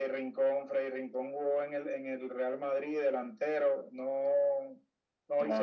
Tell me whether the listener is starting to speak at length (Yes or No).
No